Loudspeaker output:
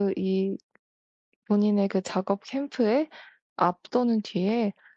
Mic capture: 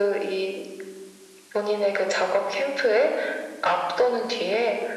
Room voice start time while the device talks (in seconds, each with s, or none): none